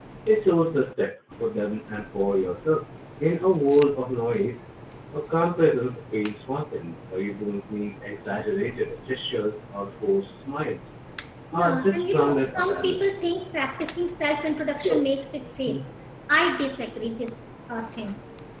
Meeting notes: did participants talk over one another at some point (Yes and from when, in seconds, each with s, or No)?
Yes, from 11.5 s